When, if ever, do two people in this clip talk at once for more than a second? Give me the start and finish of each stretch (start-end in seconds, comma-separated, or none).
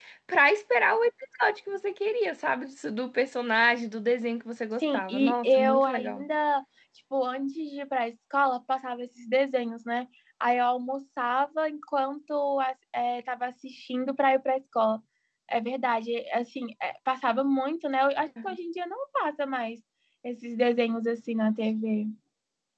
4.8-6.2